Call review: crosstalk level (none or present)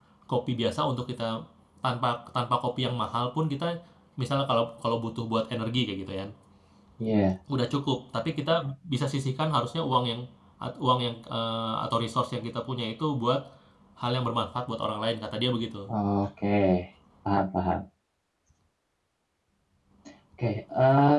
none